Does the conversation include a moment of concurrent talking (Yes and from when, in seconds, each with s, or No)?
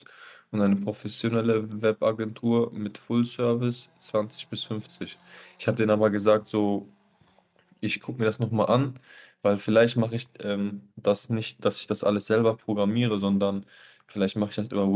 No